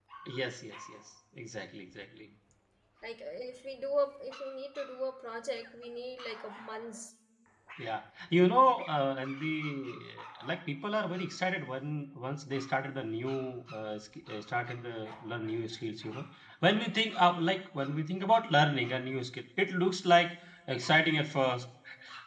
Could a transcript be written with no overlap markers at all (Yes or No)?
Yes